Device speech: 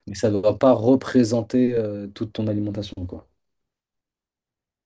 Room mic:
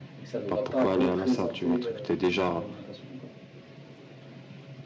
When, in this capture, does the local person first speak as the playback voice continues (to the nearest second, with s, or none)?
0 s